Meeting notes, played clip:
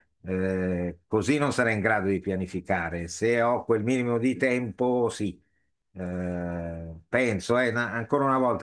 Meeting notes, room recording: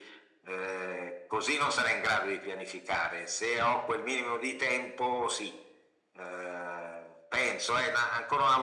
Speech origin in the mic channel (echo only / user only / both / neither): echo only